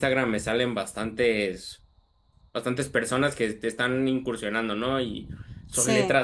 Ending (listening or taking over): listening